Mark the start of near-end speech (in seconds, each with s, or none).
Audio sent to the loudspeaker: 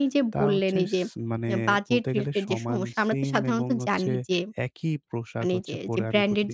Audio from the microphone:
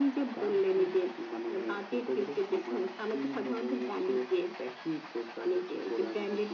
none